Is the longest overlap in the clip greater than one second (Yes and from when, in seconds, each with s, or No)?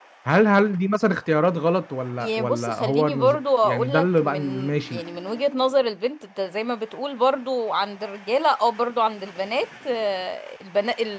Yes, from 2.2 s